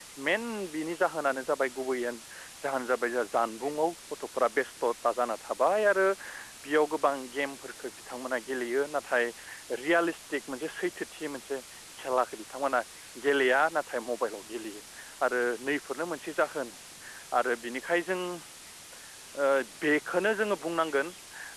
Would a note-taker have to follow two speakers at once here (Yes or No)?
No